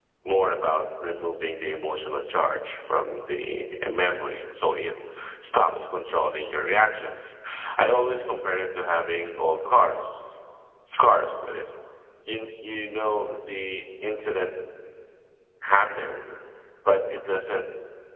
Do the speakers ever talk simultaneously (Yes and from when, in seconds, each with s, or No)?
No